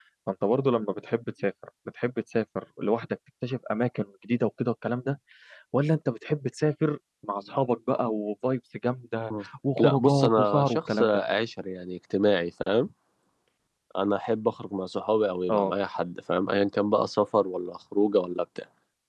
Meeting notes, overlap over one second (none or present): present